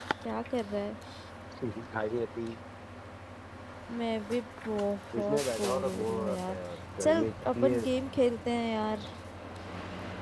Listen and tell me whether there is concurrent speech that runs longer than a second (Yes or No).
Yes